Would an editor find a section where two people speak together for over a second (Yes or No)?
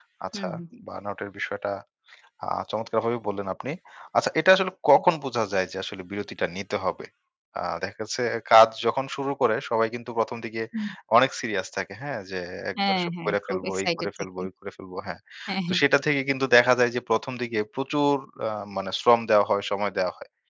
Yes